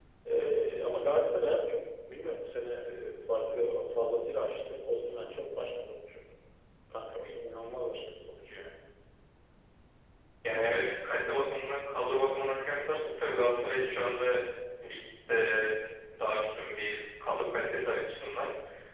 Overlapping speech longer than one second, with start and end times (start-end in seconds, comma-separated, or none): none